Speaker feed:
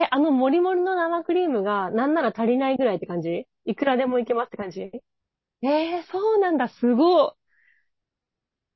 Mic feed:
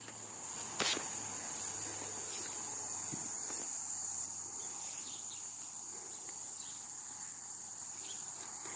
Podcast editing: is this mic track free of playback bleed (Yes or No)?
Yes